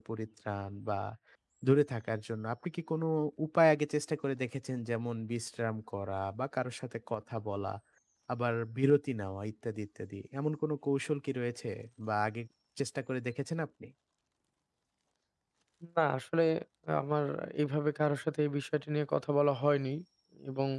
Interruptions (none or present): none